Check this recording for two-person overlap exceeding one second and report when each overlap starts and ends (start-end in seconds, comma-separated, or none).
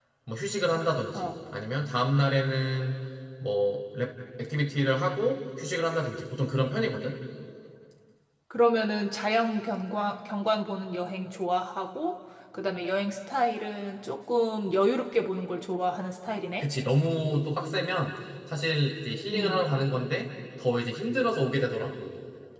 none